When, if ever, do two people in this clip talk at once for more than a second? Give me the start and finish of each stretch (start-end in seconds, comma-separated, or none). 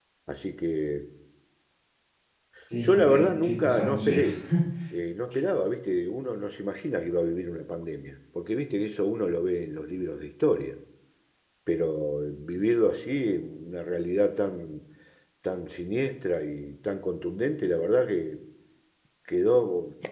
2.8-4.2